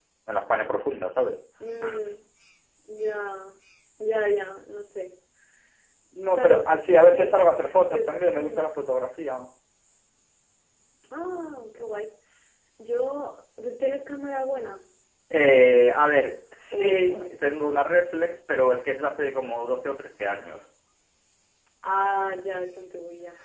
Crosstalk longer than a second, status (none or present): present